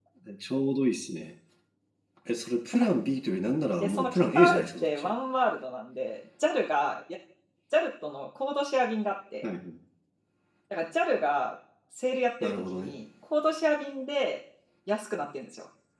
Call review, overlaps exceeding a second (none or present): present